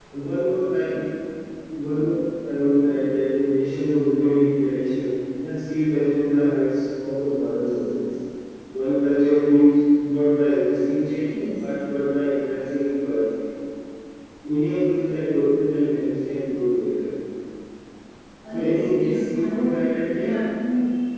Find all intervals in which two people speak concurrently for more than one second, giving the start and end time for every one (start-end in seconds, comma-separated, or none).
18.5-20.3